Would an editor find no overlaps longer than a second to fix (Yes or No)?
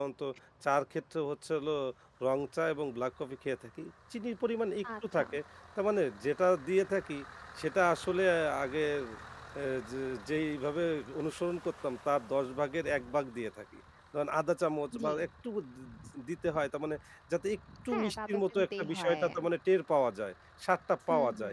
No